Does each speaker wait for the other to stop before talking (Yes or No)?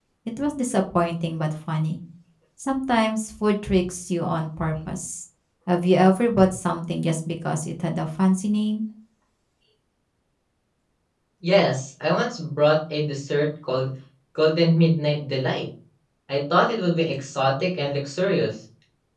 Yes